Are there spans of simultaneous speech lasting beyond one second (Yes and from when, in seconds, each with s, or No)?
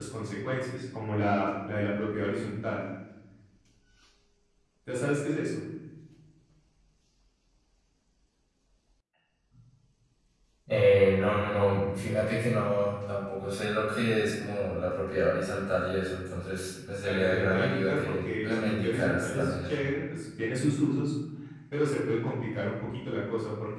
Yes, from 17.0 s